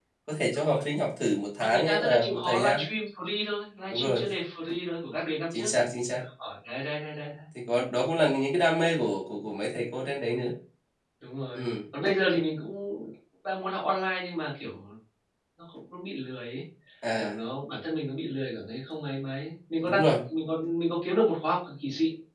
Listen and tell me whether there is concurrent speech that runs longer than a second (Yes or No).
Yes